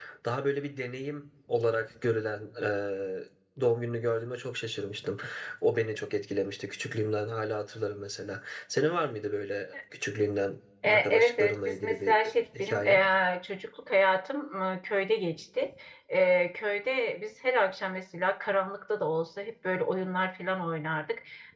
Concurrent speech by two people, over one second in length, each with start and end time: 10.9-12.2

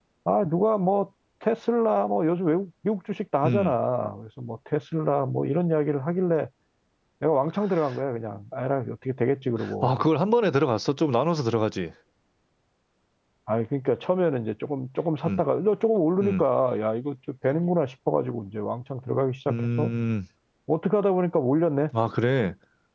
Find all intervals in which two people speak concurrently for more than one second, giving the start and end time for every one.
none

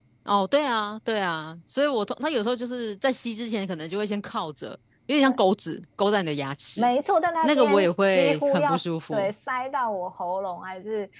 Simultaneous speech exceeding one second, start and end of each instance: 7.4-8.7

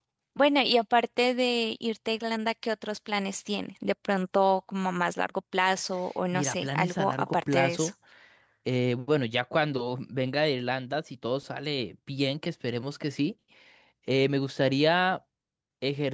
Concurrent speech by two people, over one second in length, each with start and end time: 6.3-7.9

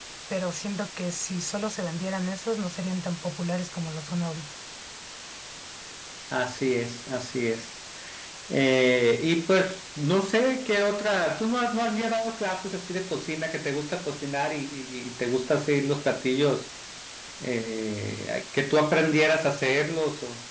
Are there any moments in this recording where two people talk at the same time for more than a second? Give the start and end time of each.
none

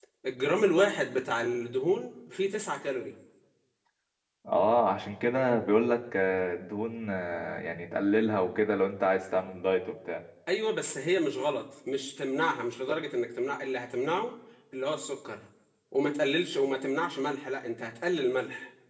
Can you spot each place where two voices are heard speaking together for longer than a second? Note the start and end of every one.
none

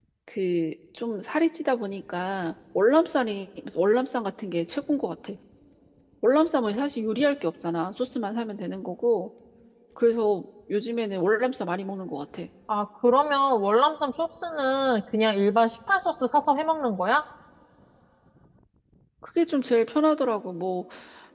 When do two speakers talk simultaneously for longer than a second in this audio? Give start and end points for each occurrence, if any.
none

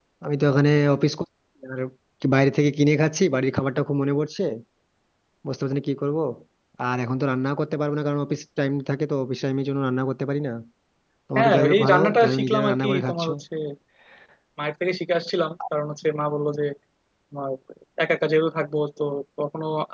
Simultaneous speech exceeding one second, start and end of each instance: 11.4-13.3

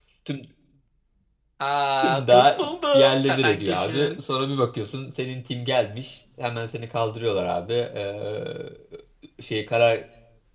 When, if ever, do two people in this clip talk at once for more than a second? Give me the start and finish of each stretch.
2.0-4.1

